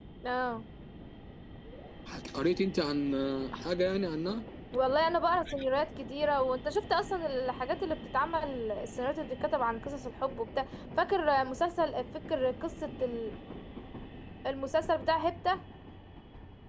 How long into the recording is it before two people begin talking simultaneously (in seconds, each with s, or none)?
none